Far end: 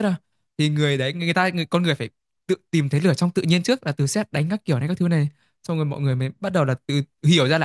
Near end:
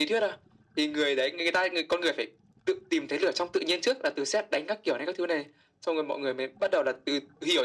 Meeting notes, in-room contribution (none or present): none